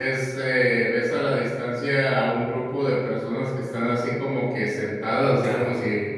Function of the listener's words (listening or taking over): listening